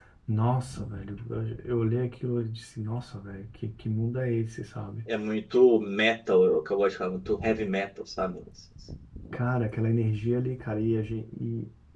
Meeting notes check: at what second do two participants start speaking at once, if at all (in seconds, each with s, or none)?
none